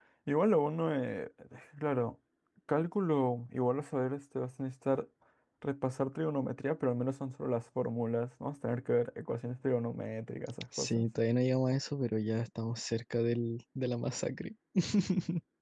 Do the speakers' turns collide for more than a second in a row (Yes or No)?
No